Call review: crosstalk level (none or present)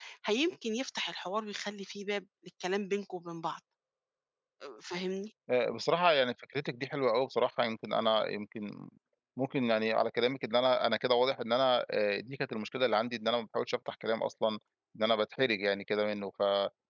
none